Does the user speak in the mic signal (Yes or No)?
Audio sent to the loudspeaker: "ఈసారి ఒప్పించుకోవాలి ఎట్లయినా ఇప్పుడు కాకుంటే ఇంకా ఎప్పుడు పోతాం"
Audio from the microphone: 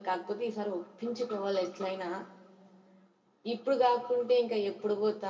No